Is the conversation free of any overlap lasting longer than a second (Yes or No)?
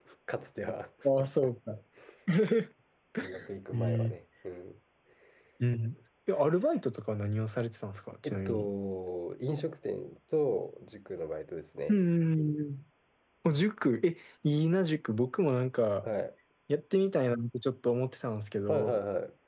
Yes